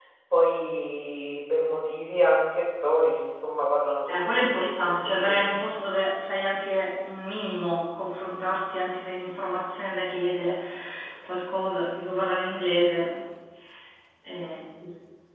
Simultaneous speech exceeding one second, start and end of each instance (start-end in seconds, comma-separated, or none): 4.1-5.4